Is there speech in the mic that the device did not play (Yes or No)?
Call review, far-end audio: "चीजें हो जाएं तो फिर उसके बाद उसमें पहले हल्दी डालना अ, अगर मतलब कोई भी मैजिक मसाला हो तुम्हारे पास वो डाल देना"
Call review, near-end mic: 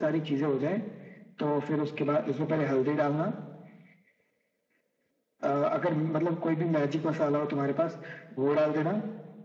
No